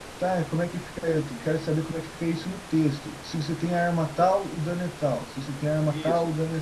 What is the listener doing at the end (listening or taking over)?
taking over